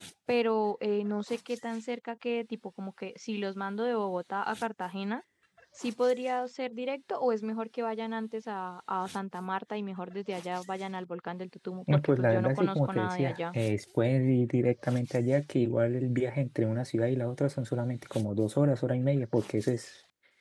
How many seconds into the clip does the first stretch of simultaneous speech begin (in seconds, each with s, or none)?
11.9 s